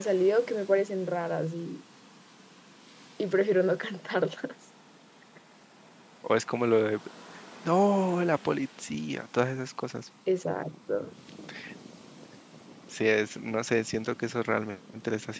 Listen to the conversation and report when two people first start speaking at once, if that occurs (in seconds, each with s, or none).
none